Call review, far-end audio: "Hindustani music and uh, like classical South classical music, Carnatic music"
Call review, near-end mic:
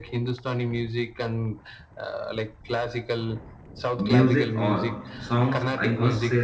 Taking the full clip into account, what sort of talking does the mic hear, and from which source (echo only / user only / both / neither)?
both